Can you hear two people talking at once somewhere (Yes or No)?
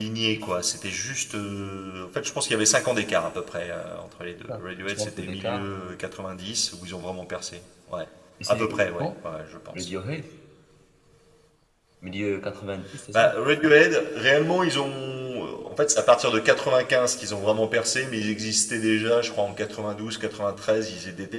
Yes